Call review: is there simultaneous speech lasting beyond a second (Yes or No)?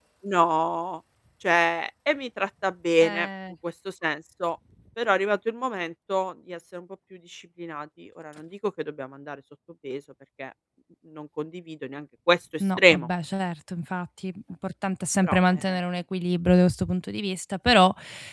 No